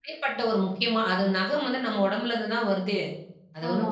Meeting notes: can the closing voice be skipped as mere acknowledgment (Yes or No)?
Yes